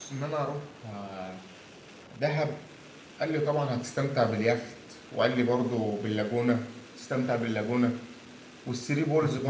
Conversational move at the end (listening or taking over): listening